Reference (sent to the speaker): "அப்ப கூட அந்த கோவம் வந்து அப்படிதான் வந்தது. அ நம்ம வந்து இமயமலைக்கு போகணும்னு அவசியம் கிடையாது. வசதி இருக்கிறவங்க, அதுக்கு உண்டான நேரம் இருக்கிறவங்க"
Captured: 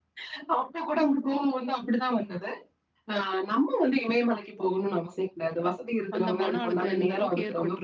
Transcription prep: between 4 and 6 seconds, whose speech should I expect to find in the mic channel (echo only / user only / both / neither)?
echo only